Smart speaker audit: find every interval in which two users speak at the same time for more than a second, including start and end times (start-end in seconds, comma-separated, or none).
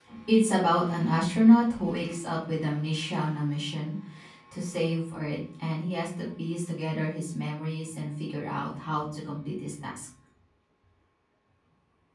none